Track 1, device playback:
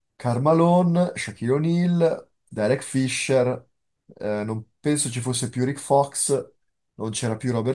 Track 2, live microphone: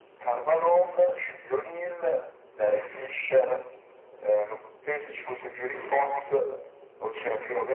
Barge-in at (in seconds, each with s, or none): none